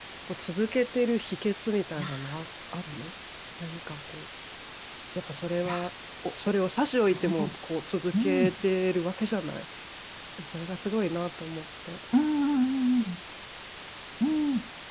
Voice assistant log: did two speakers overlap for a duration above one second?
No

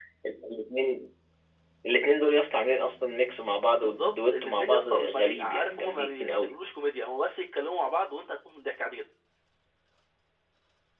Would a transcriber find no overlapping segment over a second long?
No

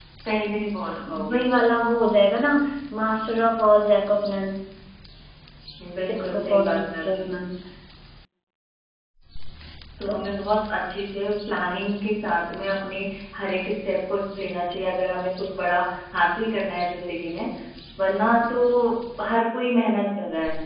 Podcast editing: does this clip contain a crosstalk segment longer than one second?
Yes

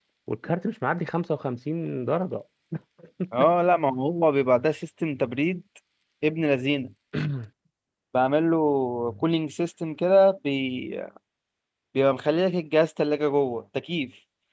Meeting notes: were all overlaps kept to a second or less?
Yes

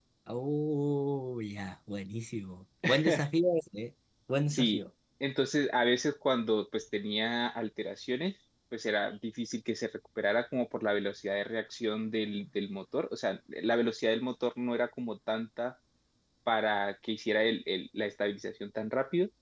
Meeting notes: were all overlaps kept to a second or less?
Yes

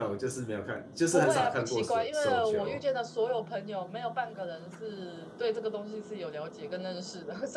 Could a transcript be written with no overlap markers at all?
No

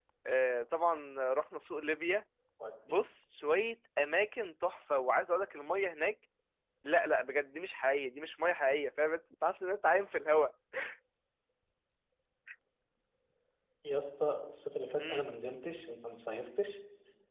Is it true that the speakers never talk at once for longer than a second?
Yes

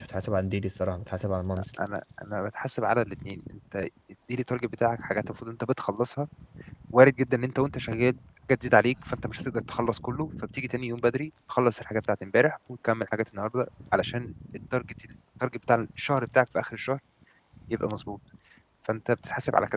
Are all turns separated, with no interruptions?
Yes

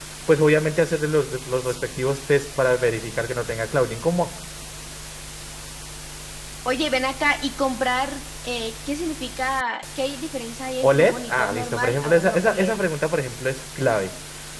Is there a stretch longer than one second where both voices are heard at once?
Yes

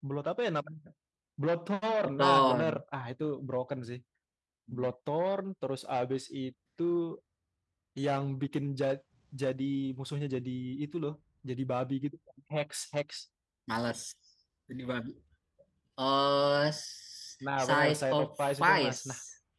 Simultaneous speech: Yes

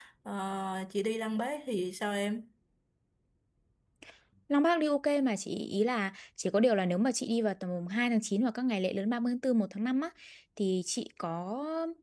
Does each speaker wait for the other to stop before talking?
Yes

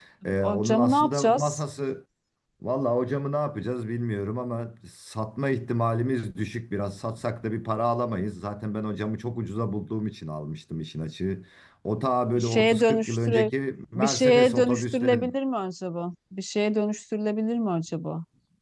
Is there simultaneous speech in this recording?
Yes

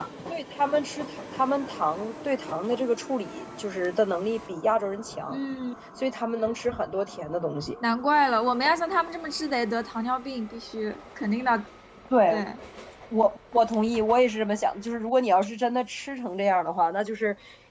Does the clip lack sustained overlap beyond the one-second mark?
Yes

